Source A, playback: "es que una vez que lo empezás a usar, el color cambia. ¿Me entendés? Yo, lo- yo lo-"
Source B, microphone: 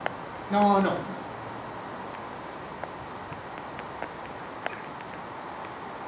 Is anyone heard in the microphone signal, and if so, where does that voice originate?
user only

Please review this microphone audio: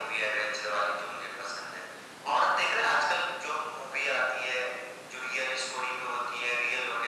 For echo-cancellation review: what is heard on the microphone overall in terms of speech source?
echo only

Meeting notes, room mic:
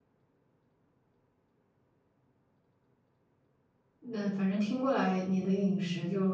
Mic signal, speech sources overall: user only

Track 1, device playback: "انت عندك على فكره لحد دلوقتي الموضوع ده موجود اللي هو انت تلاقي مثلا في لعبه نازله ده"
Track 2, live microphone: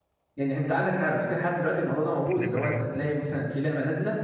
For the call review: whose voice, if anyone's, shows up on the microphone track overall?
both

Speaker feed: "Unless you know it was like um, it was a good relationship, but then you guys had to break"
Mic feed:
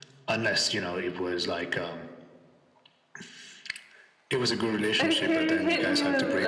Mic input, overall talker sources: both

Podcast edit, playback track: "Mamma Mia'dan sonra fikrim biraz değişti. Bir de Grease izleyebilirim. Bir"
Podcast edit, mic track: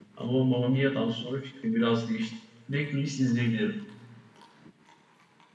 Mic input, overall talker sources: echo only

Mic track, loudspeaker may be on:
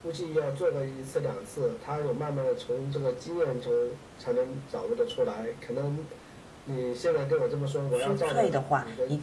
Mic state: both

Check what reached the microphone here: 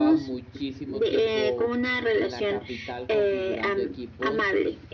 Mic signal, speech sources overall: both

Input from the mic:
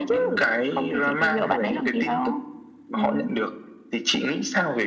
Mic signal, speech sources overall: both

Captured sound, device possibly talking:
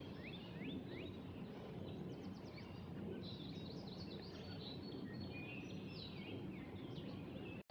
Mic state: neither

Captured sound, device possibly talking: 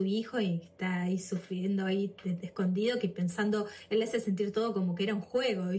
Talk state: echo only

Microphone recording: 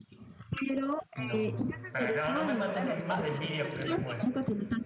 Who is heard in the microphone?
both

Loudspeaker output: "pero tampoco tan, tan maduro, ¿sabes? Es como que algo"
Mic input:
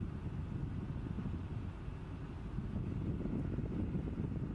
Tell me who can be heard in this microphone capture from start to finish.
neither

